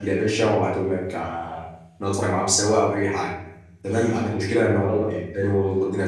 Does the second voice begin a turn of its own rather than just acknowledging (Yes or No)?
No